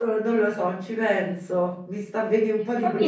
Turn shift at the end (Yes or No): Yes